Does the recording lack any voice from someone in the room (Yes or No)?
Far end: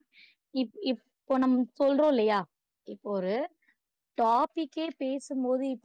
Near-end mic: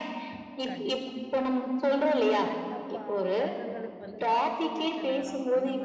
No